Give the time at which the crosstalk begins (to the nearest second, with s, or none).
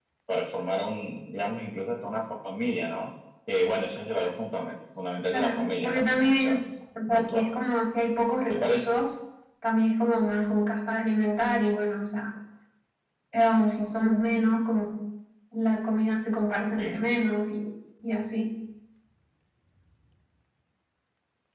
5 s